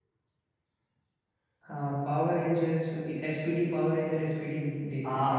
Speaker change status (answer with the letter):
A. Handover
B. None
A